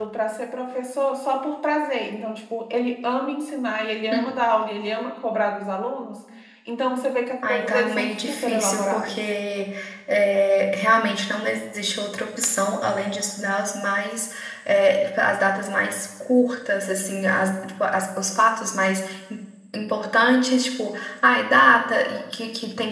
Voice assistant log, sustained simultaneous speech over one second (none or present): present